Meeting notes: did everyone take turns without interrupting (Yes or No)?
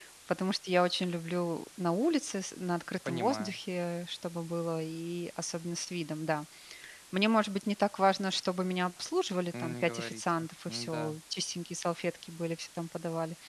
No